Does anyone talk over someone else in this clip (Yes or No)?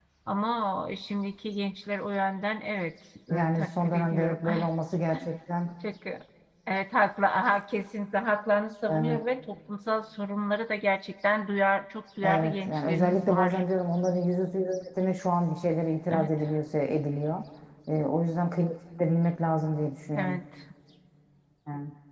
Yes